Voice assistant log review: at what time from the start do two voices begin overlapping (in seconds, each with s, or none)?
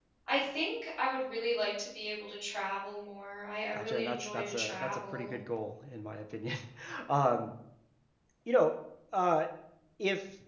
3.7 s